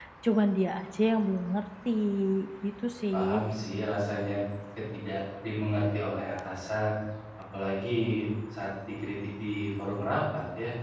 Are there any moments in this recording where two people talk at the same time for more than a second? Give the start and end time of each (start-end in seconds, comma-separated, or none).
none